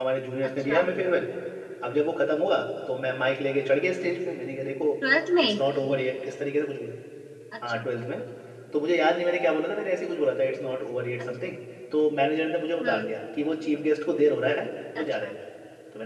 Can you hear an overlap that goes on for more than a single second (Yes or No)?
No